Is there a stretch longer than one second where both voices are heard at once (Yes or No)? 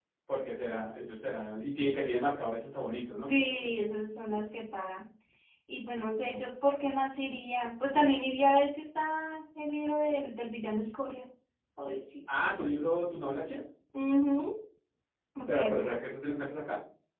No